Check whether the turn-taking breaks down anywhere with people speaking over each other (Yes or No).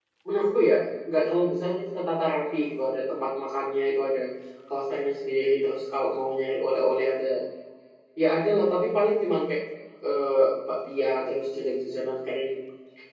No